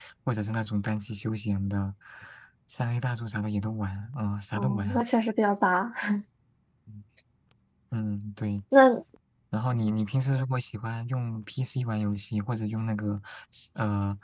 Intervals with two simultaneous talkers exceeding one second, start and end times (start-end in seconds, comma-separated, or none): none